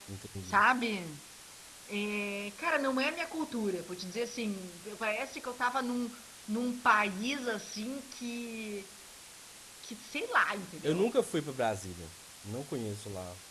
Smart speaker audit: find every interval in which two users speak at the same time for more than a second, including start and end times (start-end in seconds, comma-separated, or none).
none